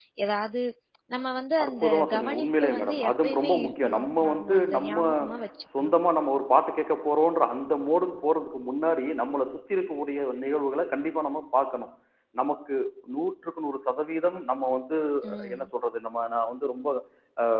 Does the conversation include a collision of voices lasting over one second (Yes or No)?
Yes